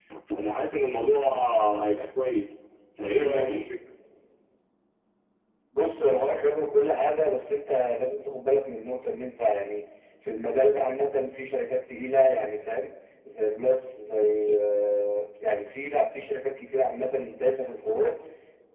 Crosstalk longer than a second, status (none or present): none